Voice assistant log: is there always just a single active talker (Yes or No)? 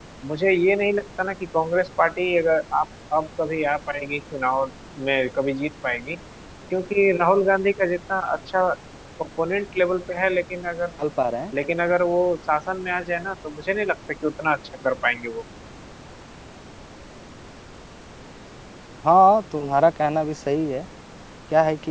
Yes